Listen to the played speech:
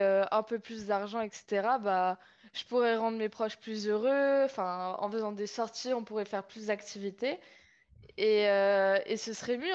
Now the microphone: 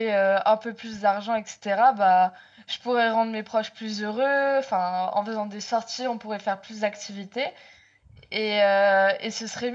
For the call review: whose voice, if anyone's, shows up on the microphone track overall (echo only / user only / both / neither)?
echo only